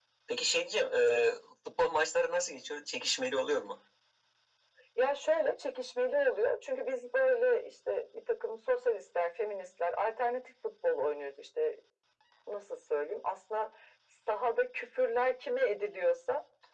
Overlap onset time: none

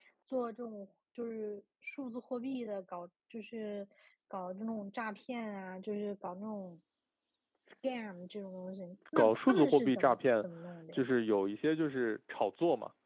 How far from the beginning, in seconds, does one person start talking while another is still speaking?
9.2 s

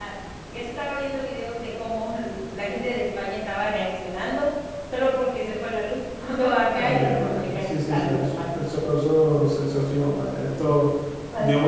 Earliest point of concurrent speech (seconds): 6.7 s

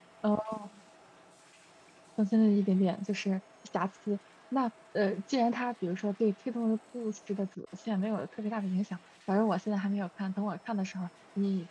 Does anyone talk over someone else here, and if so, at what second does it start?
none

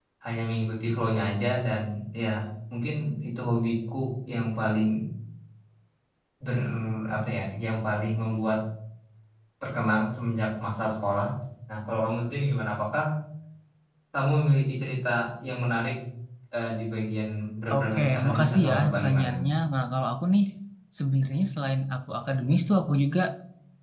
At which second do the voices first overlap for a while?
17.7 s

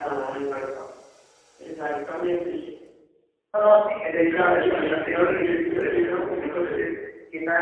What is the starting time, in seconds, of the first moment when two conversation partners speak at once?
4.1 s

